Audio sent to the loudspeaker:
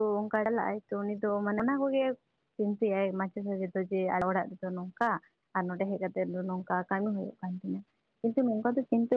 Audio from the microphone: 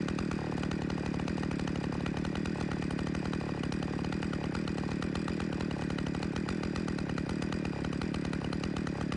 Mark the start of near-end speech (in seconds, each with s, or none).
none